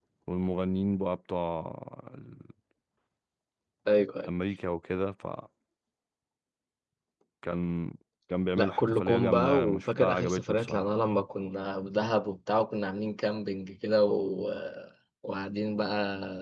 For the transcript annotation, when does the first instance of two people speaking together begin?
8.6 s

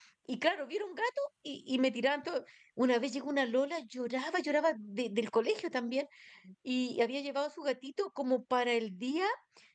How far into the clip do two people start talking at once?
none

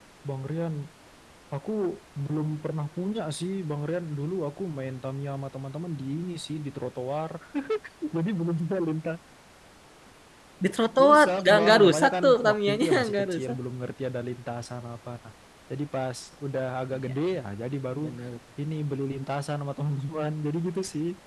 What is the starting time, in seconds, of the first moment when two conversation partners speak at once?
11.0 s

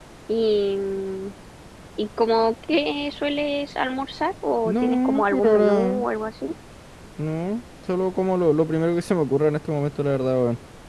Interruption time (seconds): 4.7 s

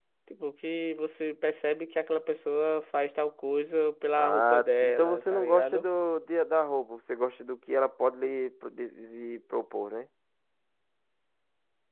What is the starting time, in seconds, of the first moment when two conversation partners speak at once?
4.1 s

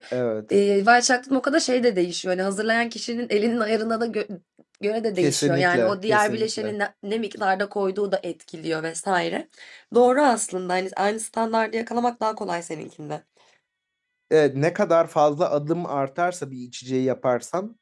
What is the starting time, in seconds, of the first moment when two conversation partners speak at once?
5.2 s

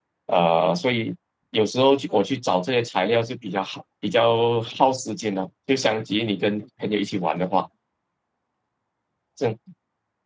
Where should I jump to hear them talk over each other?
none

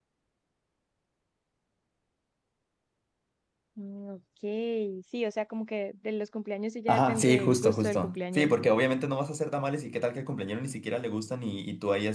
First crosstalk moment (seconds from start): 6.9 s

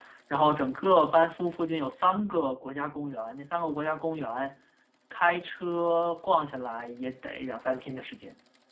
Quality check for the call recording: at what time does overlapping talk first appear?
none

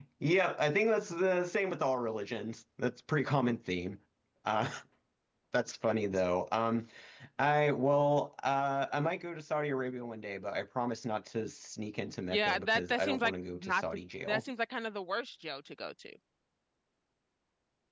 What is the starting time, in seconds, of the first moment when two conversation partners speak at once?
12.3 s

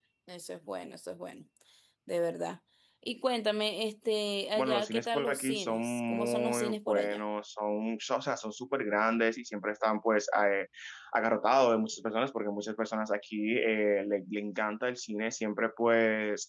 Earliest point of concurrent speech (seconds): 4.6 s

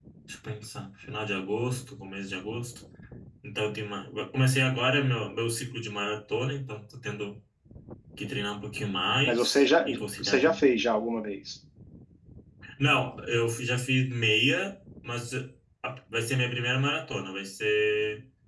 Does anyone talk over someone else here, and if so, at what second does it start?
9.3 s

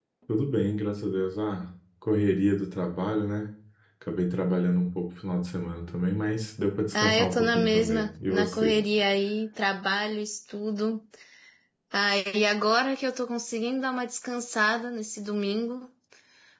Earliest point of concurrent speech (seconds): 6.9 s

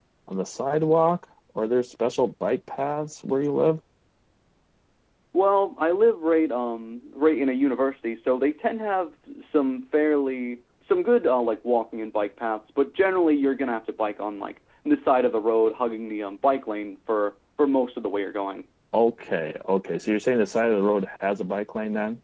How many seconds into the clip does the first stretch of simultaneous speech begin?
none

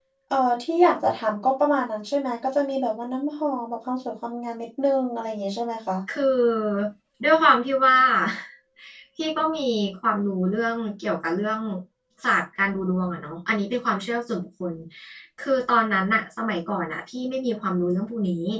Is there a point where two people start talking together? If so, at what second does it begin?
none

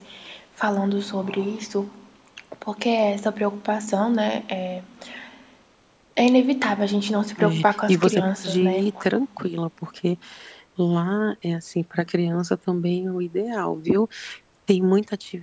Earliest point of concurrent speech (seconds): 7.4 s

